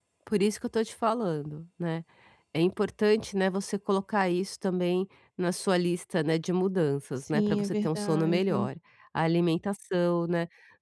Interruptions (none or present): present